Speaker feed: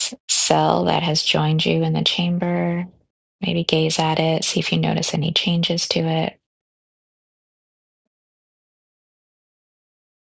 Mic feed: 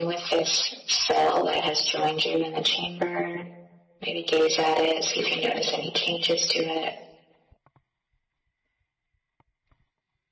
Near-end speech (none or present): none